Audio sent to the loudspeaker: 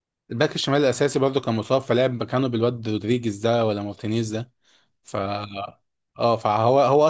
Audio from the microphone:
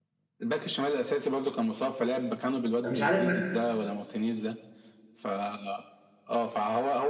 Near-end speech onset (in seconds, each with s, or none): 2.8 s